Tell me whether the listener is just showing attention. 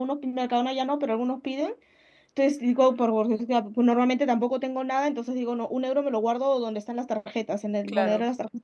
Yes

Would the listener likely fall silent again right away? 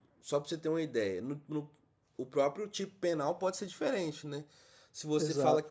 Yes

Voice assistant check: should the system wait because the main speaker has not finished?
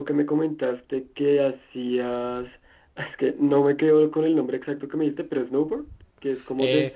No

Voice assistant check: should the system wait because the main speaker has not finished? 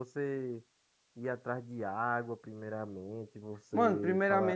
No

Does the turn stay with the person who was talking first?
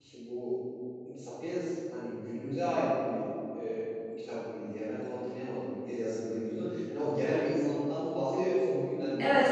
No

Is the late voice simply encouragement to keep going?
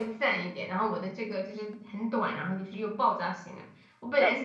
Yes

